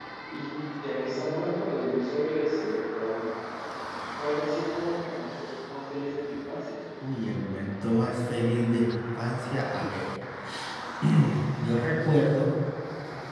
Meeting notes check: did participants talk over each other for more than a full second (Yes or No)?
No